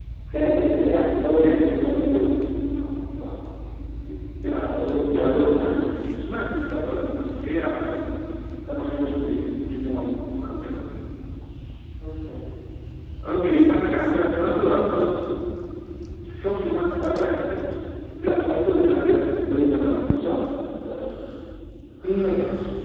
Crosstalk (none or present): present